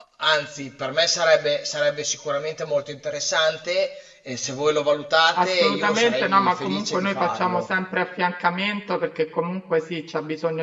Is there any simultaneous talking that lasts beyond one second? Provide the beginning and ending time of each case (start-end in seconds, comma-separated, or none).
5.4-7.6